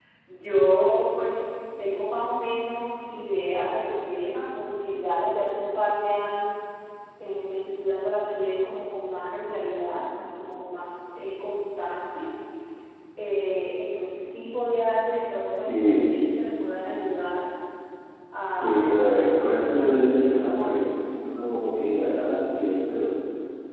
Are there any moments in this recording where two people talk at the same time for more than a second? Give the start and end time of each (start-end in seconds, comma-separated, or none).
18.5-20.8